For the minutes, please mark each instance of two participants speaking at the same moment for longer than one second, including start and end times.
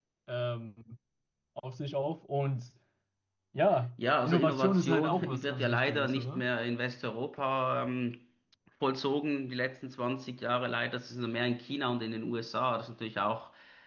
4.2-6.4

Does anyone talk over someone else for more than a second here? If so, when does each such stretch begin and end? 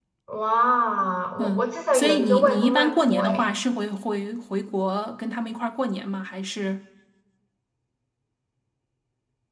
1.4-3.5

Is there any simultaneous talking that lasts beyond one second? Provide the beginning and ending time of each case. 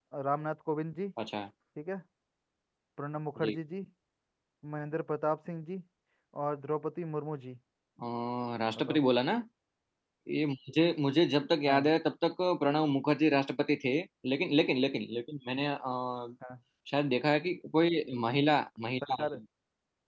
none

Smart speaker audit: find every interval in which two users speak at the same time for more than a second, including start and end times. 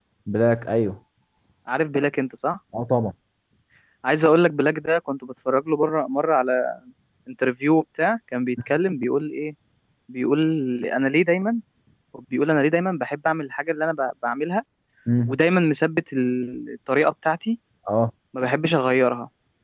none

